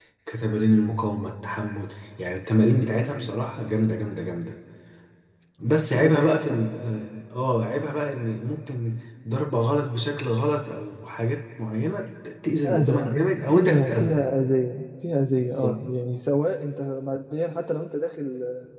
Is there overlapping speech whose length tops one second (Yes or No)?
Yes